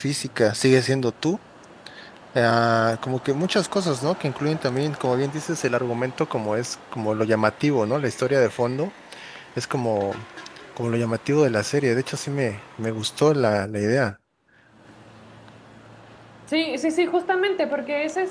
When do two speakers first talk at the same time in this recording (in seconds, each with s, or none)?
none